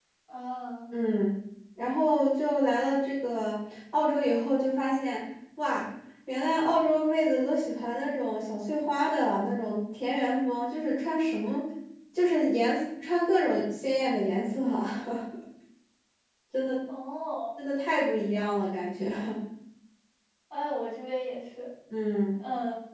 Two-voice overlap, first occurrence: none

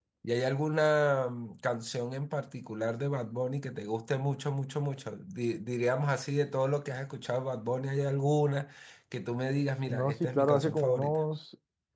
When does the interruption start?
9.9 s

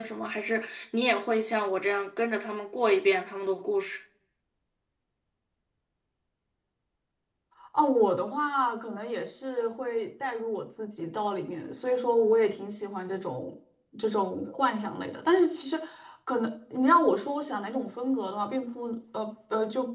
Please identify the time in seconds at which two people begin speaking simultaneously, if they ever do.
none

